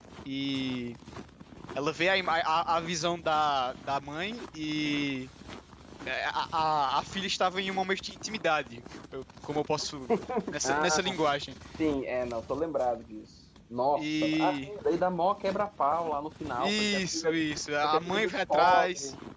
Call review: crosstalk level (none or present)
present